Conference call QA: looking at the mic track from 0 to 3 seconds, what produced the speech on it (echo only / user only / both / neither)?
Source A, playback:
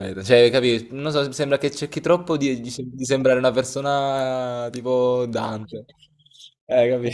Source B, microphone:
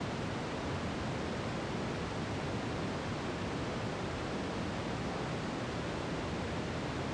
neither